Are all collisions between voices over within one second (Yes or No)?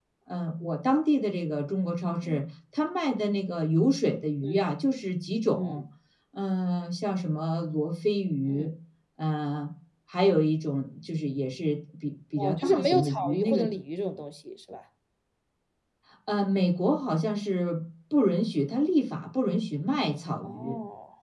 No